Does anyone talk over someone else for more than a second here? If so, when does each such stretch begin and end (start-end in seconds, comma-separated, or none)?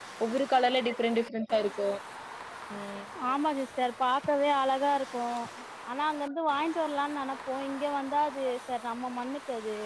none